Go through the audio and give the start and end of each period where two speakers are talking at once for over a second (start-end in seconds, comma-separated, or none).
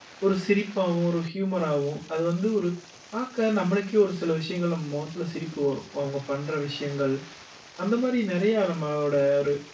none